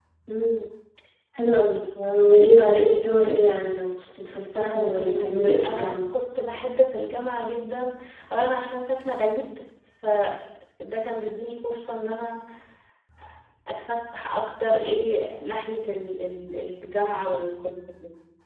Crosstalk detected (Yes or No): Yes